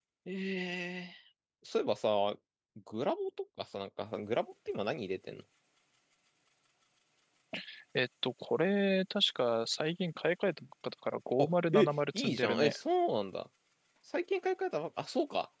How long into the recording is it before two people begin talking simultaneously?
11.4 s

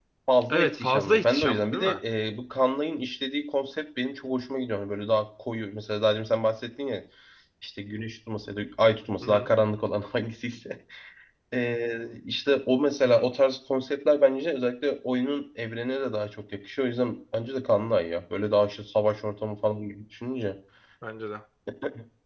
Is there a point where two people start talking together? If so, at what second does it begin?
0.5 s

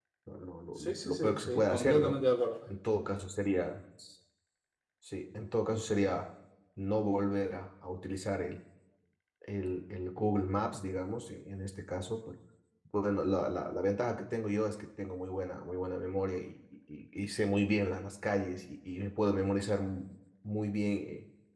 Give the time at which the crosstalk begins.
0.8 s

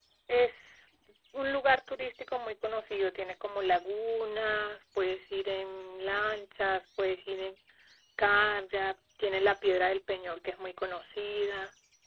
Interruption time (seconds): none

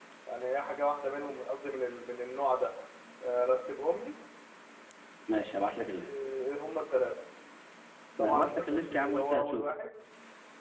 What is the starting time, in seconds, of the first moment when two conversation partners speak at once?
8.2 s

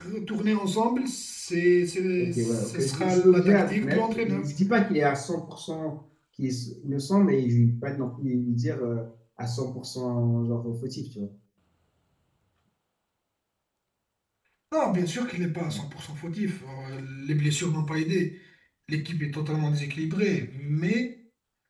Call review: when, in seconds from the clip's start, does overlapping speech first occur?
2.2 s

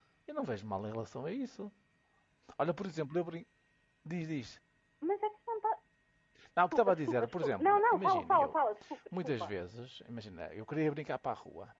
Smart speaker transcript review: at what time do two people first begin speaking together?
6.7 s

